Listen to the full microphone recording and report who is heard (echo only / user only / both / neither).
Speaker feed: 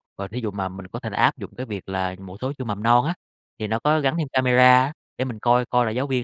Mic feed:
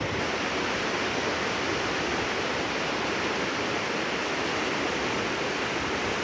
neither